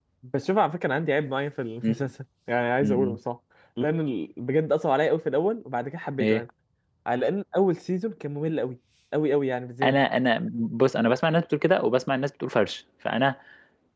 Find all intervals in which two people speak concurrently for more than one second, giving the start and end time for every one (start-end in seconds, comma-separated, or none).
none